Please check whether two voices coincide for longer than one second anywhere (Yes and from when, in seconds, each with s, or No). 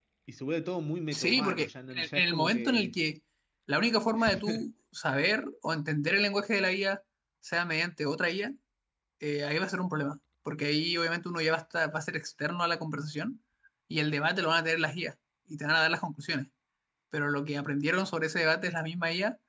Yes, from 1.1 s